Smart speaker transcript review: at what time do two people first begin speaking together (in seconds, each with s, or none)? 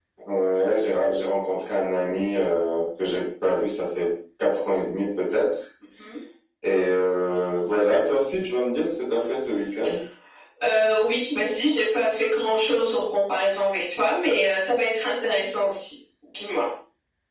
none